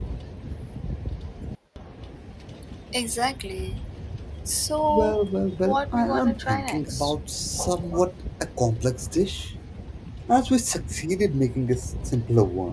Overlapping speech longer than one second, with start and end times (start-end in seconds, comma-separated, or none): 5.6-7.1